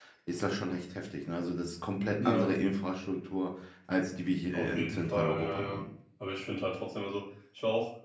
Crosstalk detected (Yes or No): Yes